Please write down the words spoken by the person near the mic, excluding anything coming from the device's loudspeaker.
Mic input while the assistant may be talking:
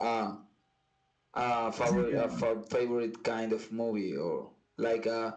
as in your

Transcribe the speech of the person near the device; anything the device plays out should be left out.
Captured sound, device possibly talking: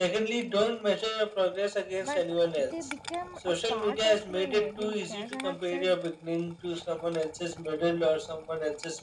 but they became a part of my identity as i have said

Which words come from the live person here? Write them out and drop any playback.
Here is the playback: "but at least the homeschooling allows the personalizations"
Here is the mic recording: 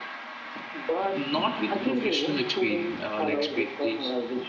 Not with the professional experience, uh, like expertise,

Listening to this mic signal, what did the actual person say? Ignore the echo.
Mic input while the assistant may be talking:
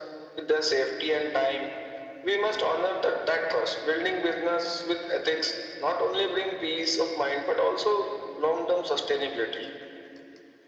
none

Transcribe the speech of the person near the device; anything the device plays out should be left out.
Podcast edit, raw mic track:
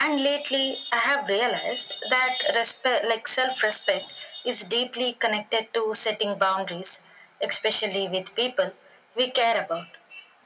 none

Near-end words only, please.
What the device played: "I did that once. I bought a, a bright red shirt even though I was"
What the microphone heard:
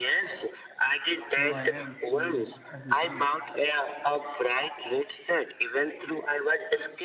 who I am changes every day.

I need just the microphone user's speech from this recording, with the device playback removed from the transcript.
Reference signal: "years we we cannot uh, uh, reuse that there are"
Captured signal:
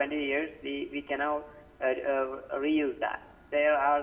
none

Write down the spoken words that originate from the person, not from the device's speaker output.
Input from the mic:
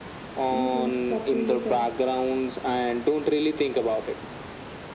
You too. Talk to you later.

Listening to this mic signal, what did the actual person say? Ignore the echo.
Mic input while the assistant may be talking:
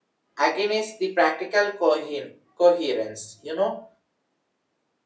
against the practical cohe- coherence. You know,

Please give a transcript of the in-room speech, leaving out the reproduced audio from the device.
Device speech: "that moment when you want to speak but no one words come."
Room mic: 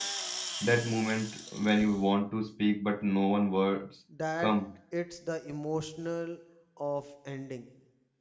That it's the emotional of ending.

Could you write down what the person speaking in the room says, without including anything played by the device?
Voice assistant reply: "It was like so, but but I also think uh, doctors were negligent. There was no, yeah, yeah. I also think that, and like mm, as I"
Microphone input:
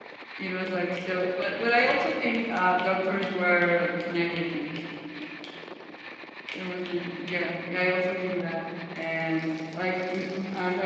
none

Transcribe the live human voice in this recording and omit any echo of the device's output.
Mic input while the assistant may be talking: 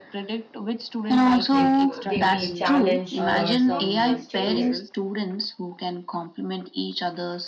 if they feel challenged but not frustrated.

